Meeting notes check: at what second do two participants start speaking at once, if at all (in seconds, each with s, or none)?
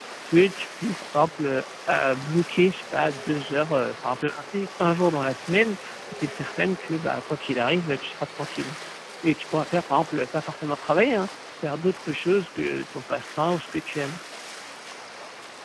none